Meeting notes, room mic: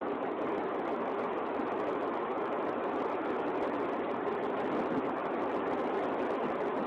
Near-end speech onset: none

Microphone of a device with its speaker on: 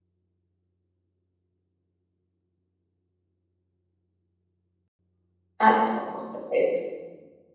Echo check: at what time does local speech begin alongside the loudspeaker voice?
6 s

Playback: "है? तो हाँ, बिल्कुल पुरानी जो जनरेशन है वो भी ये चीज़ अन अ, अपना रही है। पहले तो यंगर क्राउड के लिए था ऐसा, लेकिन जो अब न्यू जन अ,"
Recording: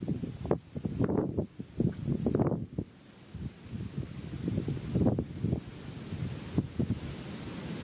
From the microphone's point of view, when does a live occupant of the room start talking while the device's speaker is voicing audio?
none

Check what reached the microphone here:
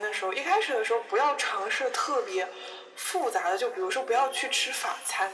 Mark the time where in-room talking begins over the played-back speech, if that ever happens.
none

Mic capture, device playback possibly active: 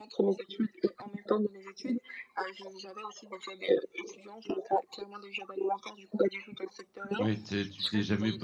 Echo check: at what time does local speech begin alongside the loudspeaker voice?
7 s

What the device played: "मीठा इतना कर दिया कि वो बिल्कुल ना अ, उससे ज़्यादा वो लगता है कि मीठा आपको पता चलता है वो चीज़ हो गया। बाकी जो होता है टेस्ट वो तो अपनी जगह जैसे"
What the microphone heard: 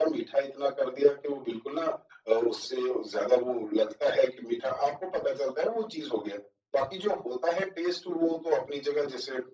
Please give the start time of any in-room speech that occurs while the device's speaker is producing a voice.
none

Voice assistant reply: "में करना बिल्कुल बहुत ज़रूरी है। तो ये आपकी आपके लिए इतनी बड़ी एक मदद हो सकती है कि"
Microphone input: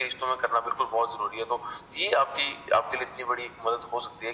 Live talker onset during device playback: none

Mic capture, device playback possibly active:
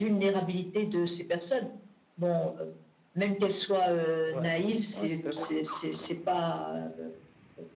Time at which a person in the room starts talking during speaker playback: 4 s

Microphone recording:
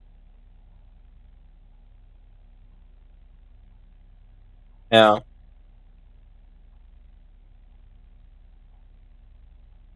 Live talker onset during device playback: 5 s

